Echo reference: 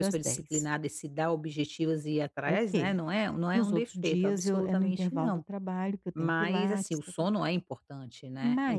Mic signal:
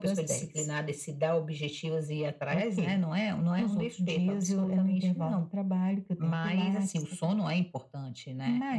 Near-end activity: none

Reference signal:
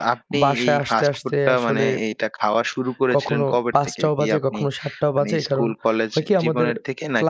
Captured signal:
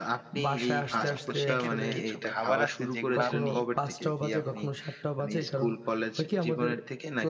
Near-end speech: present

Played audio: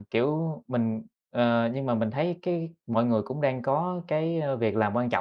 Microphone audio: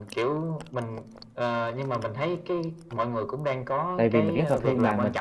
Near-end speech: present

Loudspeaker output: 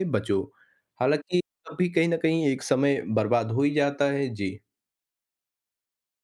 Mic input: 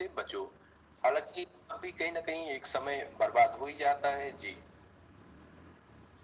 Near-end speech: none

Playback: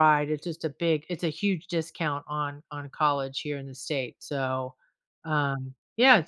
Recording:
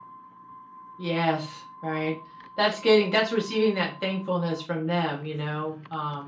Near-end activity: present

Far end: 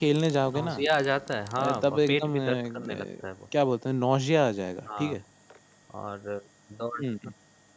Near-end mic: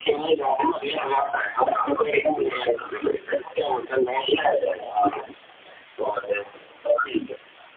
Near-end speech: none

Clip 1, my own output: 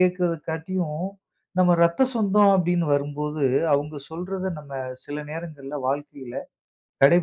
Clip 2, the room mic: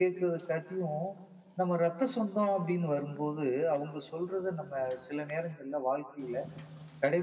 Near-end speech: none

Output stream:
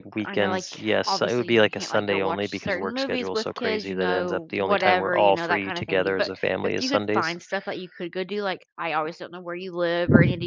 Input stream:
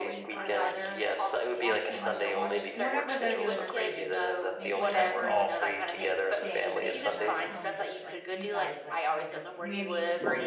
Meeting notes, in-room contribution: present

